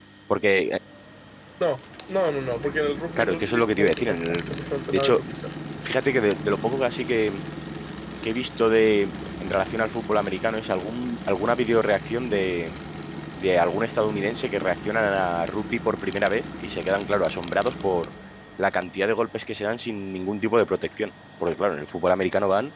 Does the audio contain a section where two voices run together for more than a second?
Yes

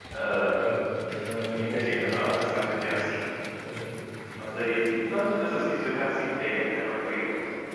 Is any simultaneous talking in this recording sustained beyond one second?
Yes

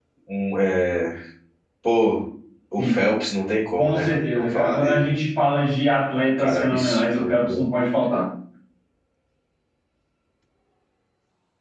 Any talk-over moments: Yes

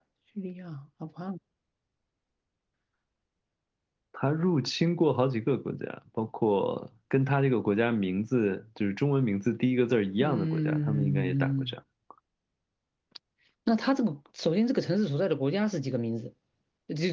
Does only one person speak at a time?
No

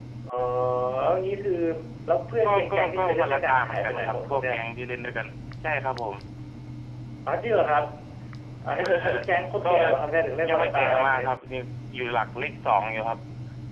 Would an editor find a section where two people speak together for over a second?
Yes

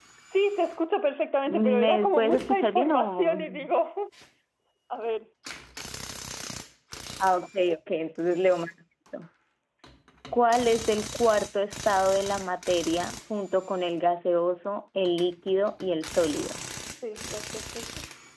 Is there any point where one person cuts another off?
Yes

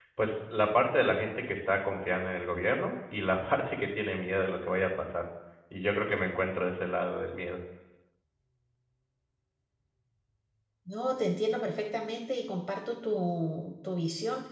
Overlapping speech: No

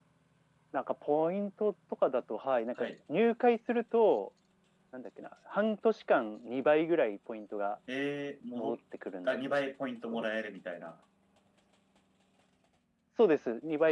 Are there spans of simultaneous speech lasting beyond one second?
No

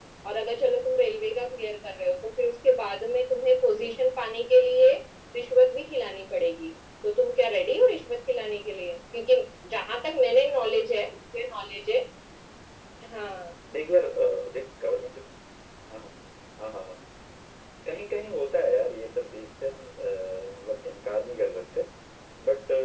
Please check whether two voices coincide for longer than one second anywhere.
No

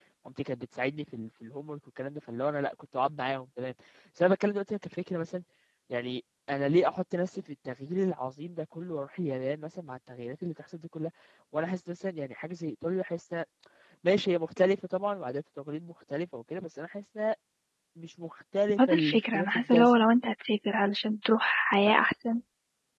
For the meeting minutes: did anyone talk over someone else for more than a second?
Yes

